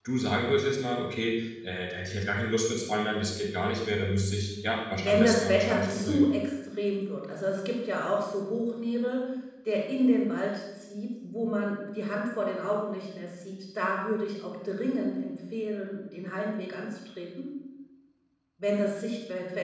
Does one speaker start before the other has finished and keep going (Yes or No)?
Yes